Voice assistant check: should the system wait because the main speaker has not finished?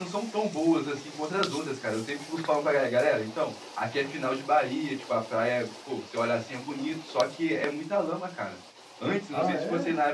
Yes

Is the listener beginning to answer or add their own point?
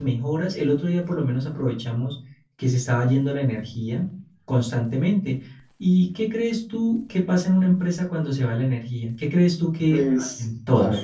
Yes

